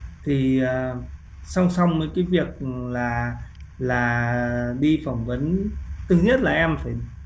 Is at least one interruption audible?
No

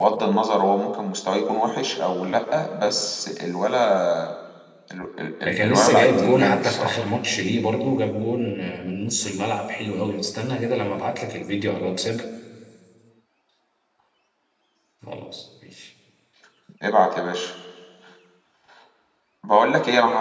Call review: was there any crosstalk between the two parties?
Yes, from 5.4 s

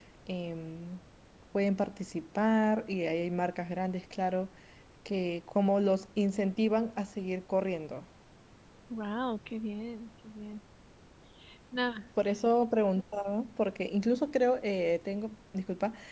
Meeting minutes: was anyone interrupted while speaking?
No

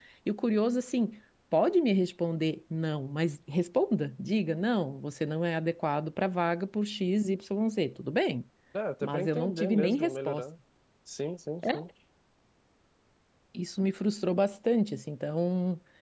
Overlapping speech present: Yes, from 9.0 s

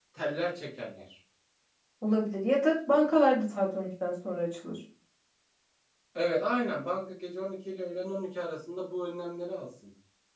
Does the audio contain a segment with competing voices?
No

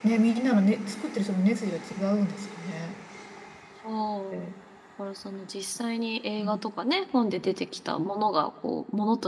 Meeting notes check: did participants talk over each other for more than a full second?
No

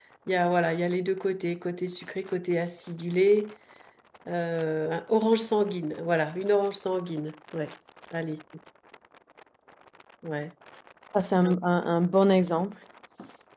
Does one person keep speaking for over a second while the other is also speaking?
No

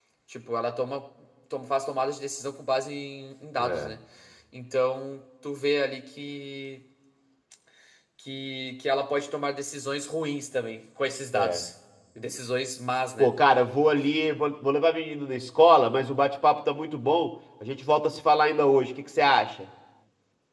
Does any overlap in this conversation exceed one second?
No

